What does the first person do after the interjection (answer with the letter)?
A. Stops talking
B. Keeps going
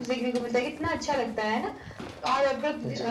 B